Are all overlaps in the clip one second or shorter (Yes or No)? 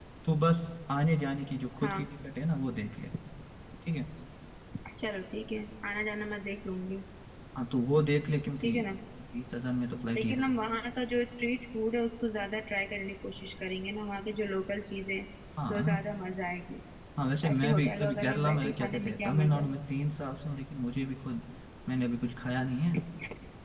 No